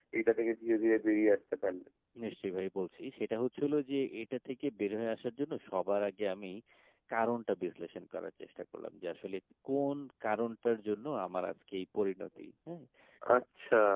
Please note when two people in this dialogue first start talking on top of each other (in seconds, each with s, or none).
none